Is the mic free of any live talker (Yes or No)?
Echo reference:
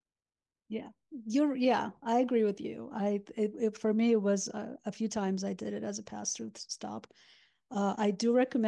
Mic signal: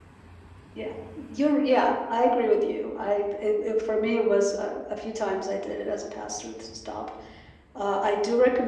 Yes